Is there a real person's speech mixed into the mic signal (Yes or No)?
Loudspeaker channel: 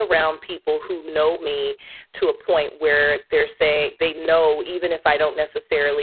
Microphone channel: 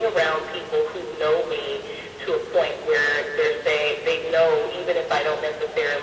No